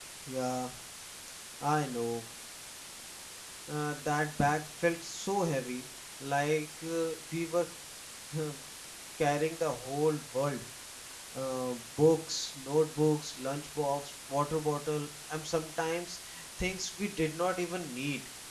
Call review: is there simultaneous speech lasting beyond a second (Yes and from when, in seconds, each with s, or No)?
No